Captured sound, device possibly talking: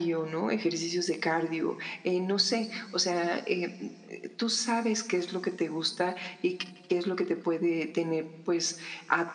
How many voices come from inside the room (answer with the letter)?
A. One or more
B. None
B